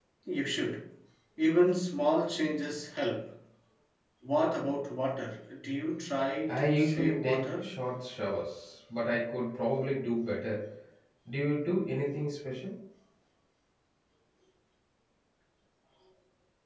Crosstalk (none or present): present